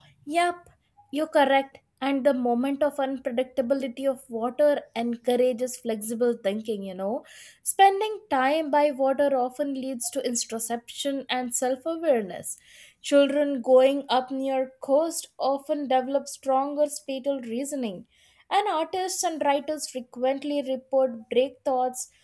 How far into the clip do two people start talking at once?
none

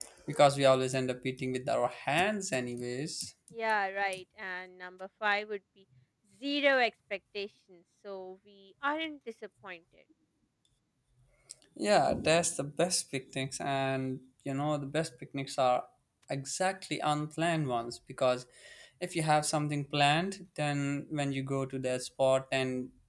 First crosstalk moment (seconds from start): none

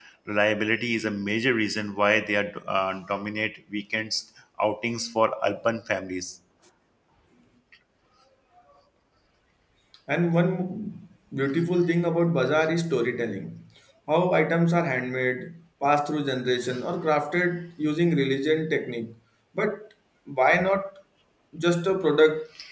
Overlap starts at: none

